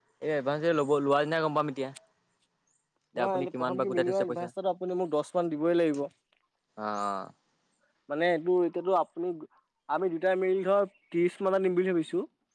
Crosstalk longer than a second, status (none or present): present